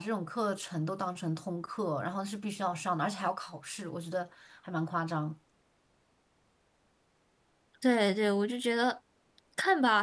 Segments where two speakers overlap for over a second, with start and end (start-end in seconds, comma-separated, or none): none